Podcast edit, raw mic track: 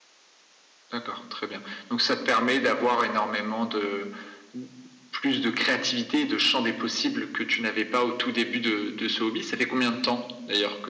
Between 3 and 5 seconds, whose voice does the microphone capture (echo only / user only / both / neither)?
echo only